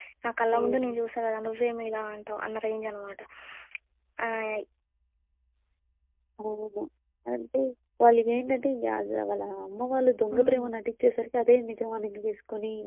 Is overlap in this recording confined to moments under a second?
Yes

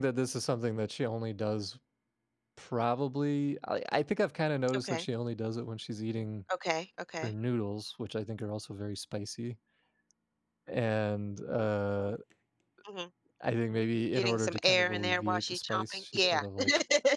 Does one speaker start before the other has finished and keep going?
Yes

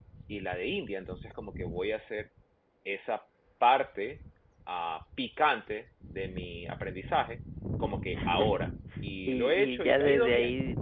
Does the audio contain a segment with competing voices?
Yes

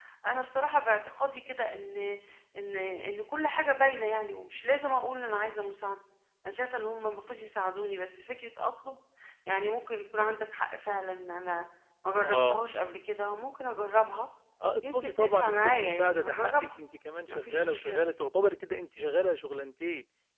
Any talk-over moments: Yes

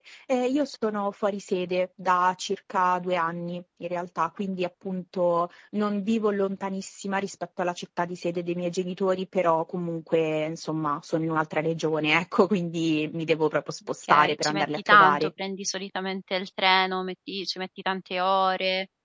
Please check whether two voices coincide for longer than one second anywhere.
Yes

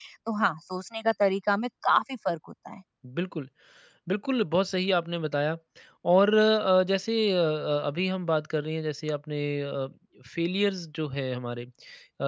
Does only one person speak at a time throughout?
Yes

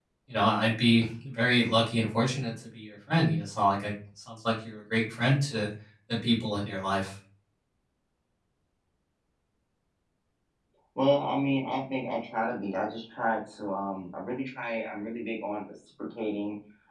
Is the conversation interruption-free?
Yes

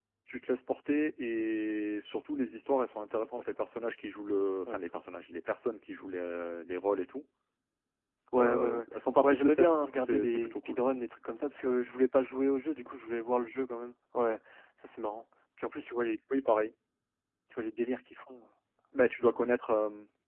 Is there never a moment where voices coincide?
No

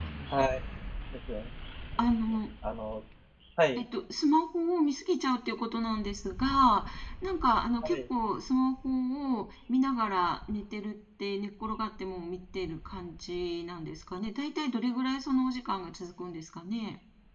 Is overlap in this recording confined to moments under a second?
Yes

